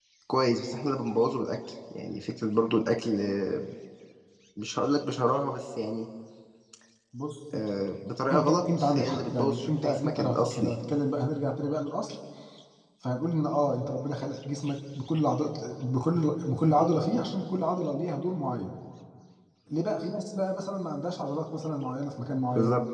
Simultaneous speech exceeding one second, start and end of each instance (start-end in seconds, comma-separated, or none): 8.3-10.7